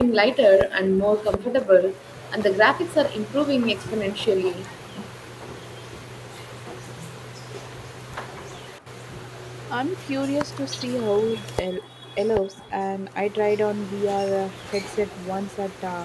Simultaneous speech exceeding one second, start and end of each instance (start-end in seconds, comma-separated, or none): none